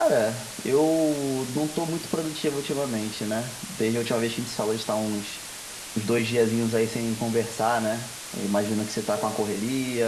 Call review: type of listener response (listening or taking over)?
listening